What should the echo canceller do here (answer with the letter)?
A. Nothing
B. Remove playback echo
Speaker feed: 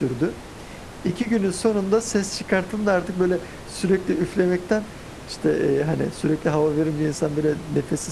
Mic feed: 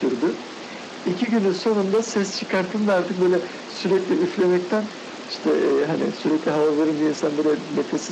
B